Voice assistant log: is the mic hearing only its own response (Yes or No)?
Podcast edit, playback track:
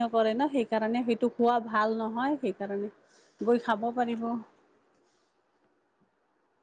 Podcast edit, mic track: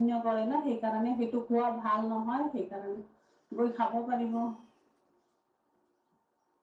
Yes